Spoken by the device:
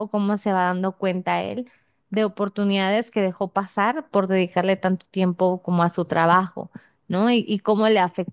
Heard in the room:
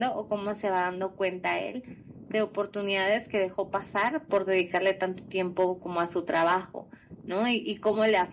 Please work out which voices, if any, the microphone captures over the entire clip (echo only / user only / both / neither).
echo only